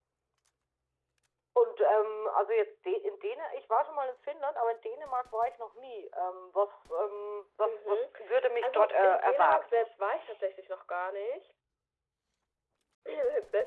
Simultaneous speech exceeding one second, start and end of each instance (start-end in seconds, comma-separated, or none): 8.6-9.9